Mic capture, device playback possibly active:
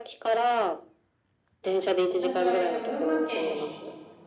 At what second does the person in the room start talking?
1.6 s

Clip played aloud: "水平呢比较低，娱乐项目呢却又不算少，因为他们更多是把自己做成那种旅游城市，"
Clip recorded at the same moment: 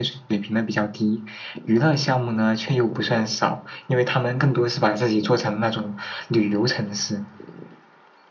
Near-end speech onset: none

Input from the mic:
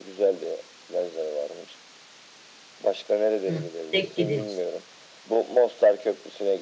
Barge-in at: 3.4 s

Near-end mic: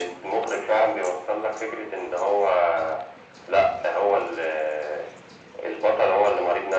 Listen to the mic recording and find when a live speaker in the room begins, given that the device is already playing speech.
none

